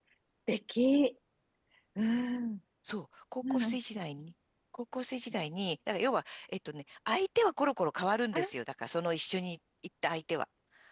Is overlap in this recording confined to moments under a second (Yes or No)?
Yes